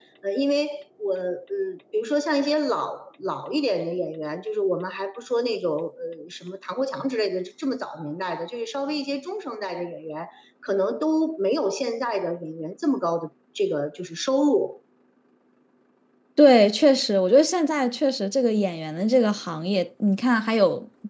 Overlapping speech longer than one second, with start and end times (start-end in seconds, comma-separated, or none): none